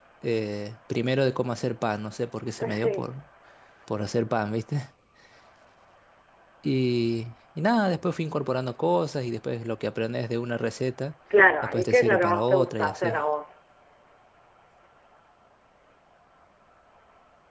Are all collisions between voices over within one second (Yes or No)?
No